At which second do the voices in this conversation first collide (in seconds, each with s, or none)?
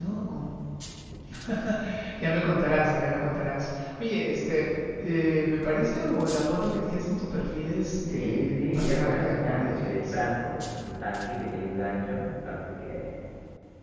8.1 s